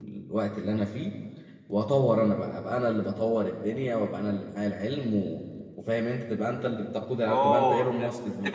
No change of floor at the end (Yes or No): No